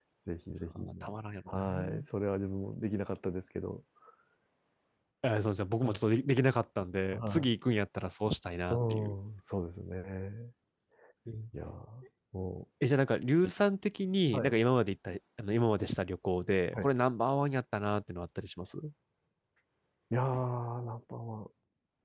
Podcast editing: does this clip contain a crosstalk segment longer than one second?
No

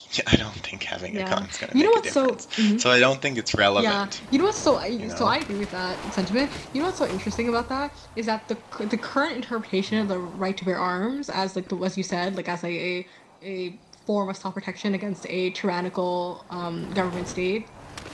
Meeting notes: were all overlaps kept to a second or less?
No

